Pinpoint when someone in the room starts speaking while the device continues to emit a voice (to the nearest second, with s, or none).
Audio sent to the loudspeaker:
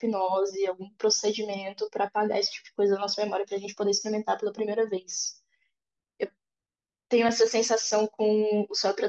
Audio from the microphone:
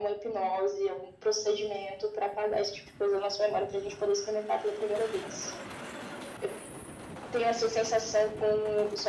none